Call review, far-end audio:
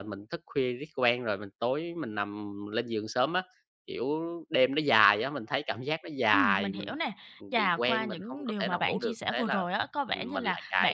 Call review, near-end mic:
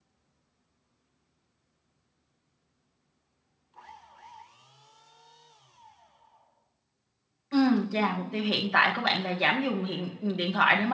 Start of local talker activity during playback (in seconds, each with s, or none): 7.5 s